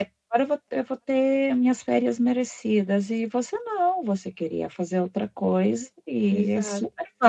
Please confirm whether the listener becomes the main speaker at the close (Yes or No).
Yes